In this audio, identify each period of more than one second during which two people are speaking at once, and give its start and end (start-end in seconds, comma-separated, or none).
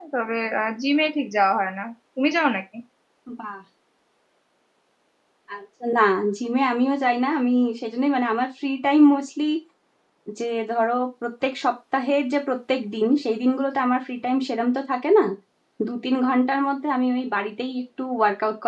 none